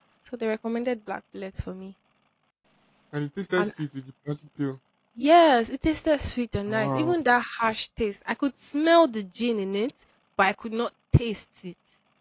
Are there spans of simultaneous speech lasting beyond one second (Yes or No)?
No